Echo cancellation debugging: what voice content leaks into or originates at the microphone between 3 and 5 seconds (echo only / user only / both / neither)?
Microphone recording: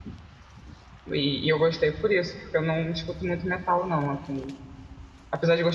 user only